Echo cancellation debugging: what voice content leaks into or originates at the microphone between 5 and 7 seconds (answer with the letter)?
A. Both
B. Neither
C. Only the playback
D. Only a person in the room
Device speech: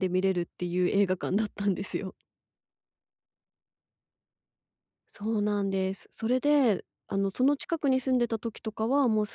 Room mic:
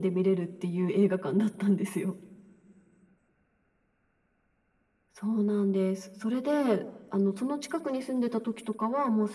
C